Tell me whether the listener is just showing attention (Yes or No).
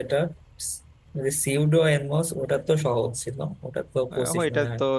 No